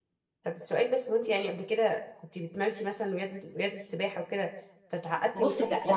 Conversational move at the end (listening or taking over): taking over